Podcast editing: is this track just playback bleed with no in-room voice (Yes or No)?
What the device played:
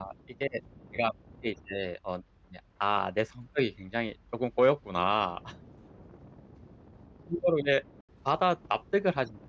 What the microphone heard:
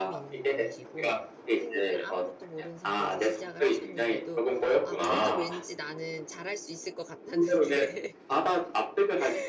No